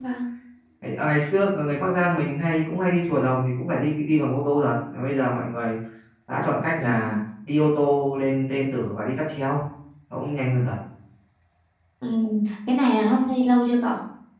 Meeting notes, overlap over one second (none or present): none